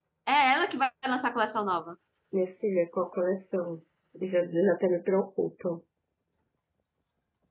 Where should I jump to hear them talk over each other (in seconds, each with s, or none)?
none